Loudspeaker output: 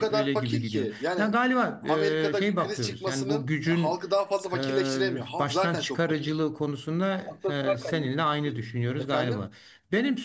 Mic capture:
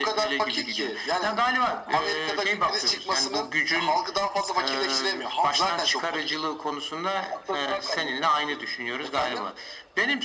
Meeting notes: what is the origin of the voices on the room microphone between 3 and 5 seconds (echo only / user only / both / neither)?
echo only